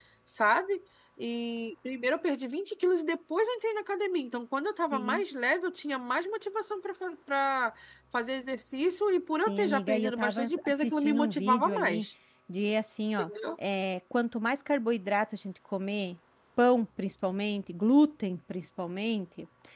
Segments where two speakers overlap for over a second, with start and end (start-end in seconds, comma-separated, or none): 9.5-12.1